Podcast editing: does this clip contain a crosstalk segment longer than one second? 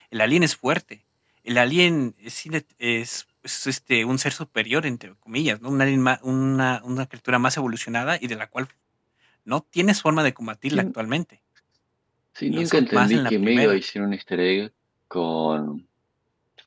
Yes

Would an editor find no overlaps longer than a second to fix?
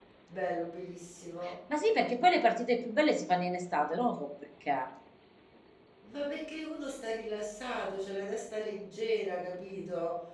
Yes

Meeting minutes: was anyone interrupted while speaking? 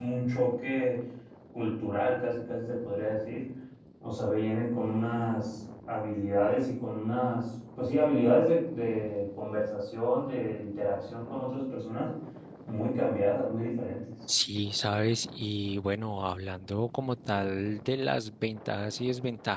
No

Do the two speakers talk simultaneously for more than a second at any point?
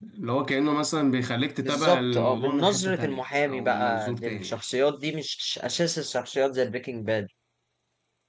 Yes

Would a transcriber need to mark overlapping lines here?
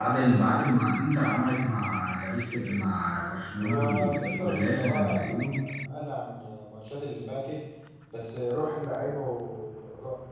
Yes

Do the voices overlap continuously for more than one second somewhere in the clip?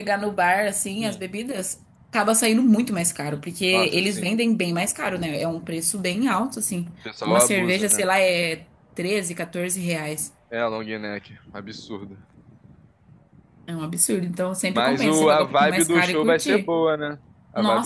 Yes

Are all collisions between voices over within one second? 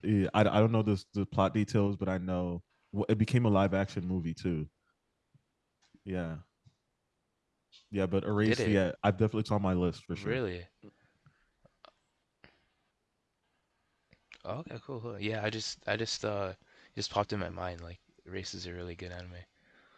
Yes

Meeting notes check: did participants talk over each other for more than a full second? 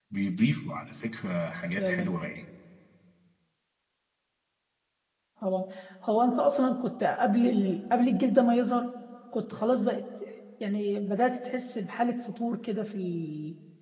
No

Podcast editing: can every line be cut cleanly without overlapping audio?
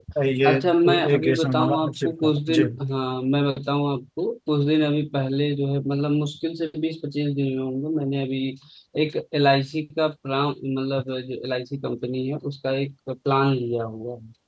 No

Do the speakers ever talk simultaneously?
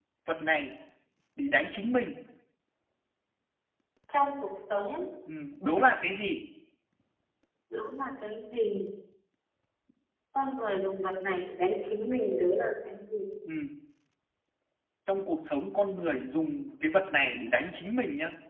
No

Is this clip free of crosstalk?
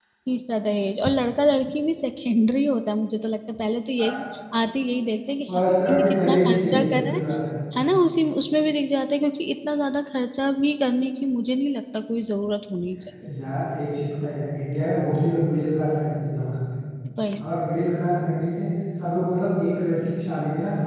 No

